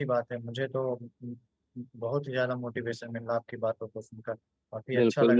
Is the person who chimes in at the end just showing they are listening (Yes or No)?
No